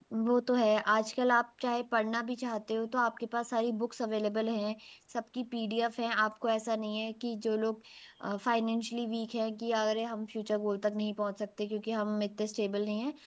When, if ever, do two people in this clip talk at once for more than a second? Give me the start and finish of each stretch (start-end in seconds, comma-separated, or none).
none